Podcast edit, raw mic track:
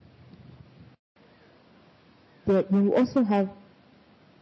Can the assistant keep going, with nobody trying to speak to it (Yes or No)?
No